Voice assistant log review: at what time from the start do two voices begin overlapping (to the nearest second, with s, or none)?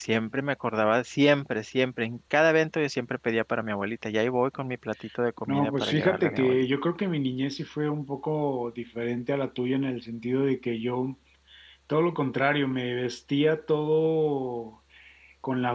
5 s